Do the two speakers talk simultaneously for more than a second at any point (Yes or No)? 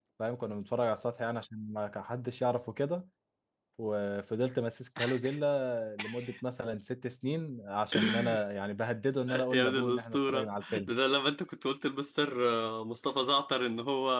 Yes